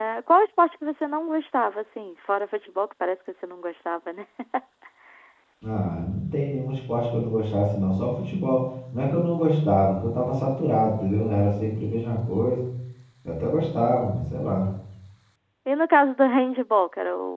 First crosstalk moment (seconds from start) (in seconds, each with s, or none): none